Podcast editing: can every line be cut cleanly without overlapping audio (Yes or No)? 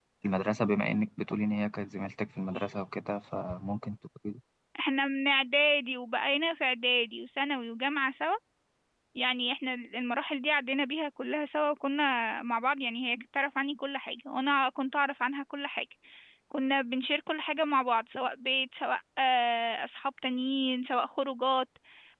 Yes